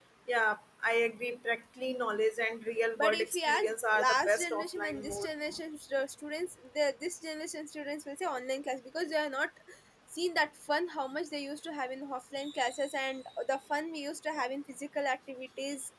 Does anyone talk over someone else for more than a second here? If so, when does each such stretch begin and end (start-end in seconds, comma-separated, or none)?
3.0-5.3